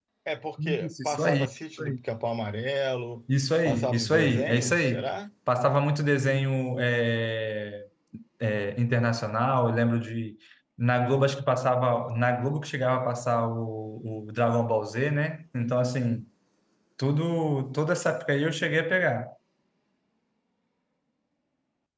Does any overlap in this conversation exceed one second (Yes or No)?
Yes